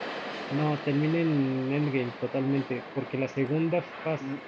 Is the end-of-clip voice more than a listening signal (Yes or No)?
Yes